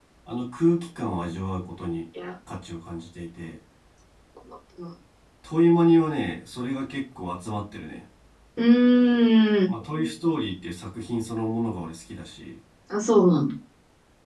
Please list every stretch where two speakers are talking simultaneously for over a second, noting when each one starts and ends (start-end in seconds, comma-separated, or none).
none